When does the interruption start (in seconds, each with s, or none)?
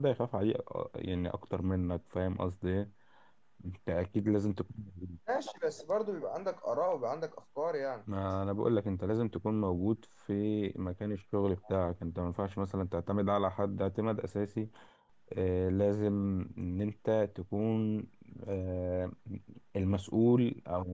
none